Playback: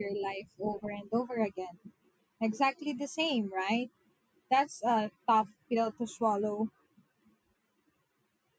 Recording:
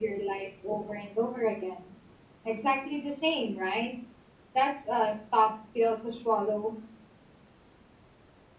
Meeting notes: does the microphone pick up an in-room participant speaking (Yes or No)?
No